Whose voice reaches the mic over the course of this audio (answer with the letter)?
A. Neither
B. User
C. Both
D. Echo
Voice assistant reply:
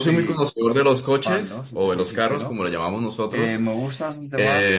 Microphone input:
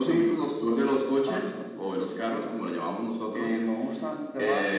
D